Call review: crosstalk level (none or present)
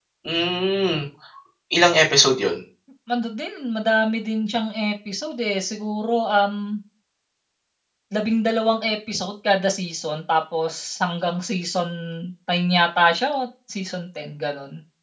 none